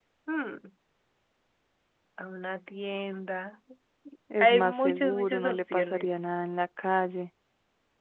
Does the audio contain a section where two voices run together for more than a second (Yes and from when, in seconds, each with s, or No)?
Yes, from 4.4 s